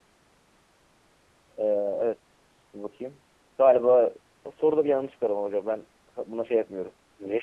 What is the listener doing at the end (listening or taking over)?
taking over